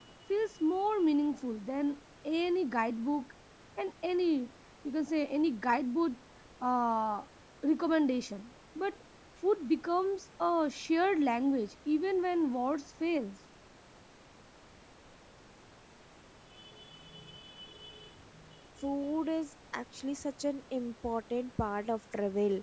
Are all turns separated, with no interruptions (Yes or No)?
Yes